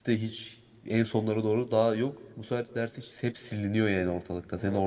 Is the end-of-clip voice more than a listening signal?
Yes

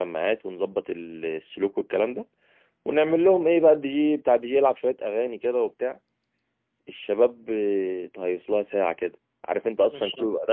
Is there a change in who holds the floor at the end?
No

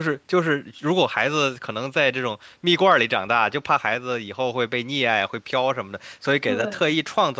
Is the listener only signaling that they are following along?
Yes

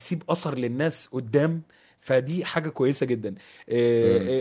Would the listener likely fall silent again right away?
Yes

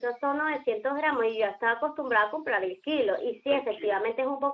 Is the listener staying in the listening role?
Yes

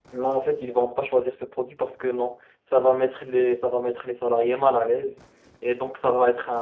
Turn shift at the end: No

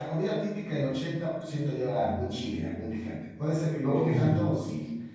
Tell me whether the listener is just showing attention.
Yes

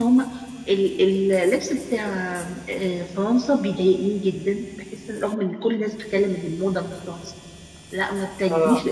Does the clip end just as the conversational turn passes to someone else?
No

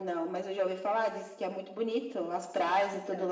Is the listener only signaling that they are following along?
Yes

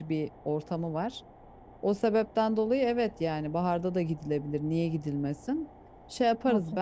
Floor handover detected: No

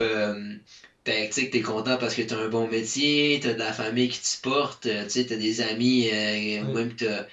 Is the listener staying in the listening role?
Yes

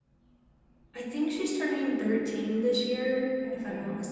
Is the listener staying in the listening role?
Yes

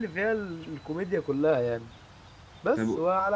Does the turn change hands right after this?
No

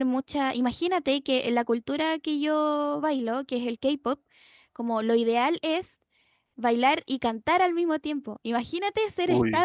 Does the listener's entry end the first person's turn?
No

